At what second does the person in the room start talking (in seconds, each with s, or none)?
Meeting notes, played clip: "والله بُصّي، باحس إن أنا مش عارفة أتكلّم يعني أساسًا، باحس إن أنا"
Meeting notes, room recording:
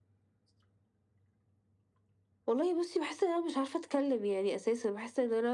none